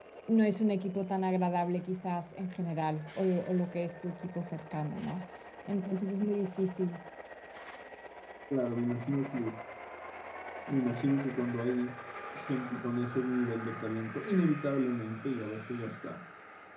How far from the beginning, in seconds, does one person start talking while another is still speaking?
none

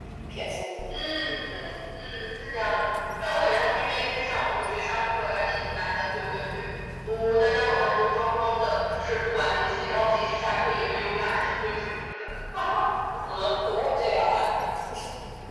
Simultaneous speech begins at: none

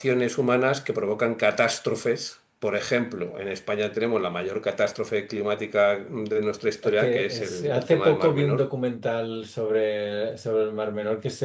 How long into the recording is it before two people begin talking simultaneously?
7 s

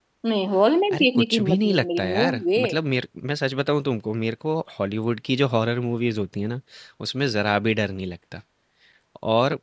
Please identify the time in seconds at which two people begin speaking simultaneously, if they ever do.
1 s

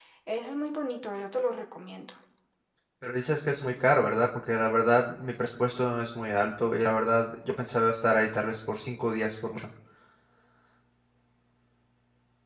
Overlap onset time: none

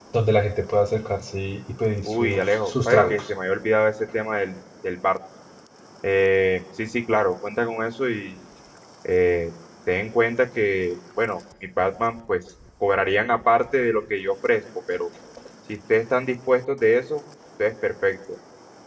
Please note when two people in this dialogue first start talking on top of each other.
2 s

